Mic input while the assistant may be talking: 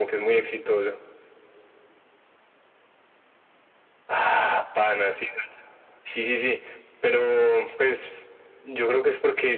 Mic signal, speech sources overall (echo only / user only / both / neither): echo only